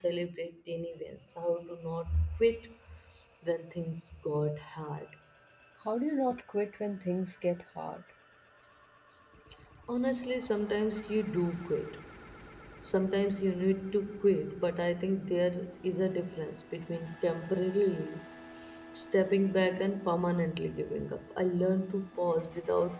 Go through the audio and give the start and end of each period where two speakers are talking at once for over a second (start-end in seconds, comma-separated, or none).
none